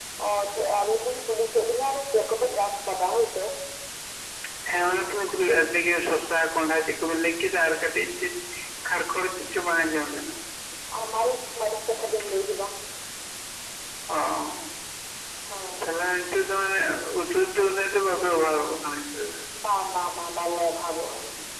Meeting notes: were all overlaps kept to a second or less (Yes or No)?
Yes